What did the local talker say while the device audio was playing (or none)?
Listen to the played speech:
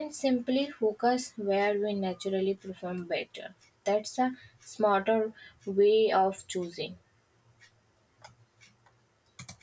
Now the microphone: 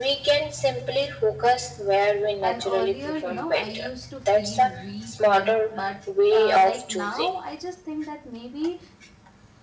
and earlier you know i used to feel weak when but uh, like now i just think that maybe